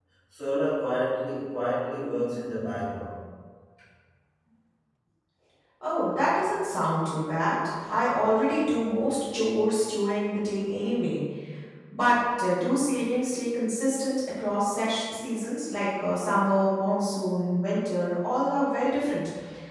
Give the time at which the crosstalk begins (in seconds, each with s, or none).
none